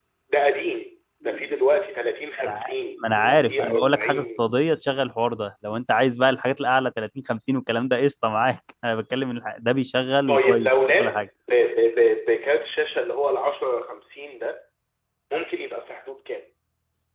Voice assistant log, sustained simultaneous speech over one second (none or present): present